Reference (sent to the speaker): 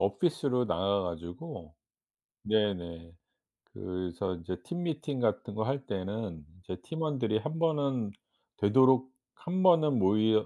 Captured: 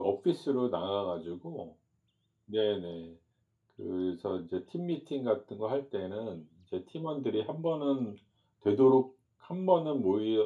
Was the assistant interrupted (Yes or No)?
No